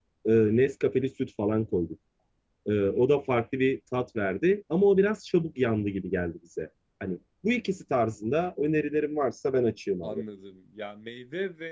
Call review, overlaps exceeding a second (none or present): none